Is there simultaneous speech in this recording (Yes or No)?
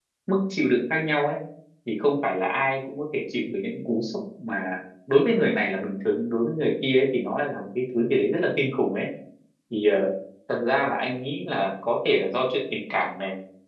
No